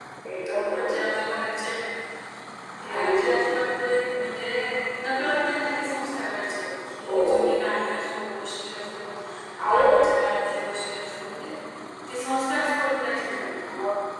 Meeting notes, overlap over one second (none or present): none